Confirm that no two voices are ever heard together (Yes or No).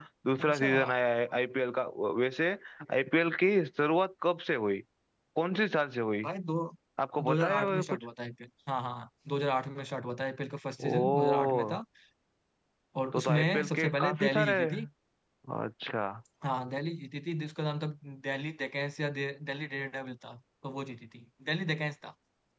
No